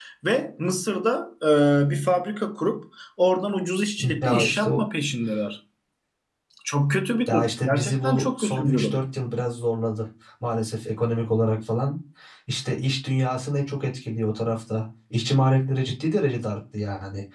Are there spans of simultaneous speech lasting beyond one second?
Yes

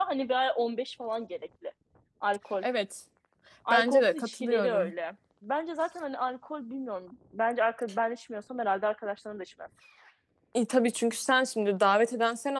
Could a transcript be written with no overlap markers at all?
No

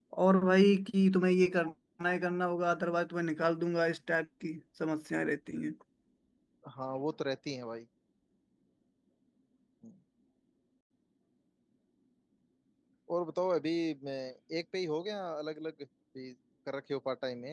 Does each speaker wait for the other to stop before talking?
Yes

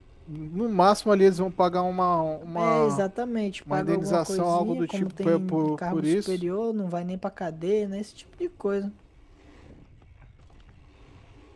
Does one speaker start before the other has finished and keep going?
Yes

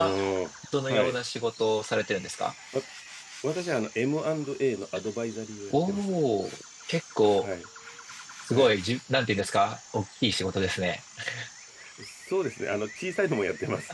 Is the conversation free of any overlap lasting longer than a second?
Yes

